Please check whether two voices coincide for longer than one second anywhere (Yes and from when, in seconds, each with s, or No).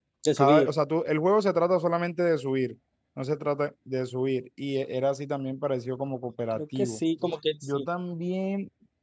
No